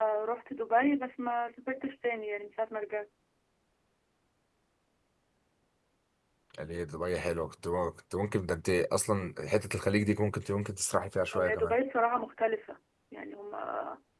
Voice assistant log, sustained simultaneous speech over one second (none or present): none